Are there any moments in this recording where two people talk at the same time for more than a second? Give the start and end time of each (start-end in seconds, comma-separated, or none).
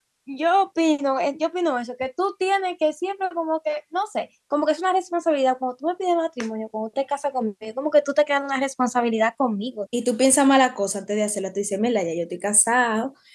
none